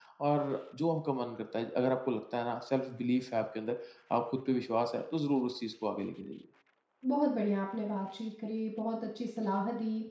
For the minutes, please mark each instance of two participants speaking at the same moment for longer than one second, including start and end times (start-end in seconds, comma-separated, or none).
none